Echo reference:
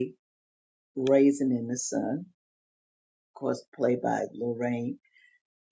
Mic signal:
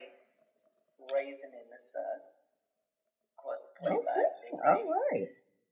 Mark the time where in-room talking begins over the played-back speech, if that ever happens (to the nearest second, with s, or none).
4 s